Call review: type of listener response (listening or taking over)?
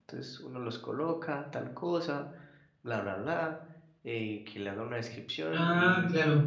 listening